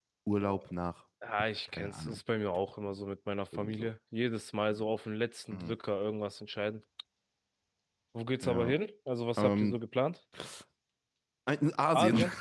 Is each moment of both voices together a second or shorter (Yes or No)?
Yes